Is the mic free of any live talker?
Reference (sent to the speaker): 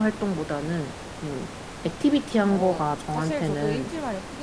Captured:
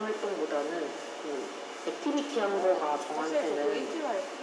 Yes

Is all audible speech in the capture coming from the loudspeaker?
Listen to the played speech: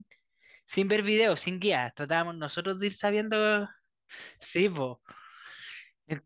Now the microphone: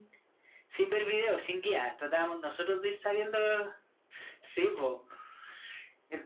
Yes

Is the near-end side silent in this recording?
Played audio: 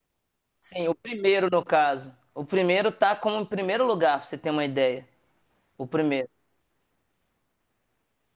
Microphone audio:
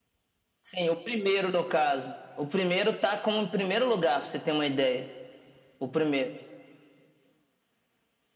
Yes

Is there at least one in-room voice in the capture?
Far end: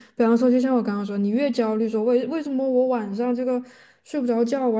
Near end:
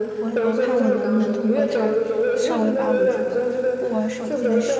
Yes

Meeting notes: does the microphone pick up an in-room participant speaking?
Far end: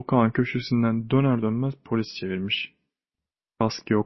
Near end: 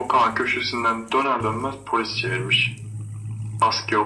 No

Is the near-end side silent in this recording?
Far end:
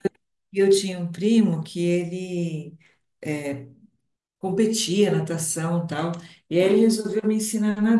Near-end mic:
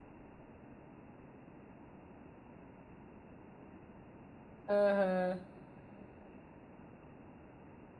No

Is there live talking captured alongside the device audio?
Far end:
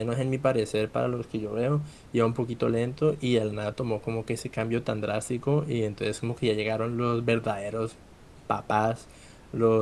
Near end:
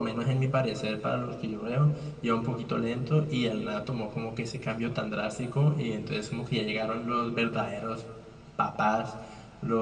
No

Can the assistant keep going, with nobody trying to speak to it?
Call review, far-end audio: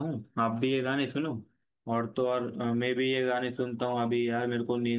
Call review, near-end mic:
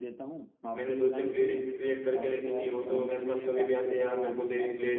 No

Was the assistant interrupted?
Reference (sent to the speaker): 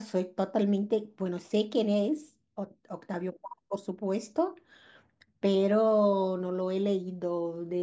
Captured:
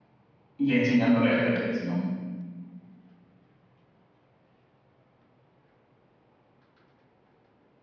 Yes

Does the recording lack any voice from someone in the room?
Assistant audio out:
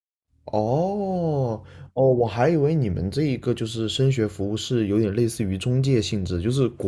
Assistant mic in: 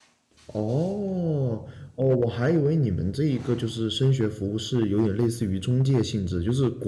Yes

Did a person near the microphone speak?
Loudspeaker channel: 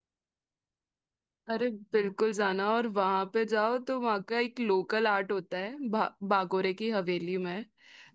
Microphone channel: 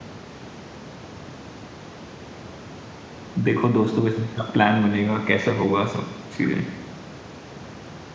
Yes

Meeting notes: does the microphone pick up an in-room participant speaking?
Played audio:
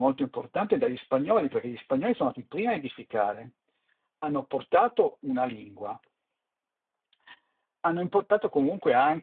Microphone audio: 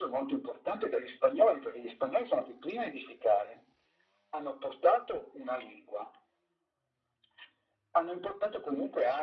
No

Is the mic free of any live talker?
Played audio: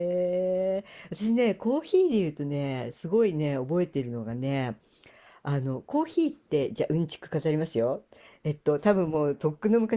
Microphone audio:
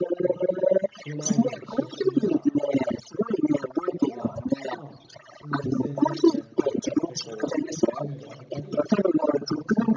No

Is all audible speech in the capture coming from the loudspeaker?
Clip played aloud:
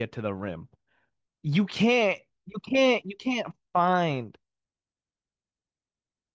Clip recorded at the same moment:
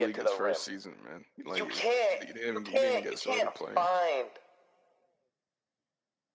No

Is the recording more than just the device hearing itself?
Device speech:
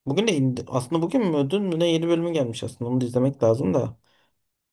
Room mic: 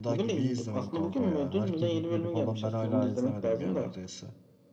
Yes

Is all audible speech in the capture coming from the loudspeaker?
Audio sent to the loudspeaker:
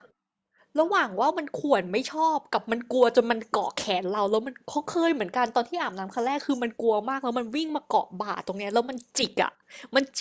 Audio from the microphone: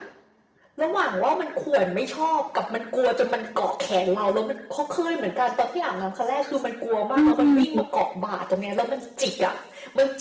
No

